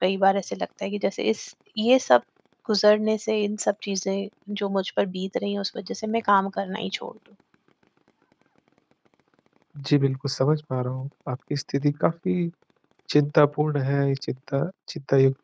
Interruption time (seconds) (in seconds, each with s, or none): none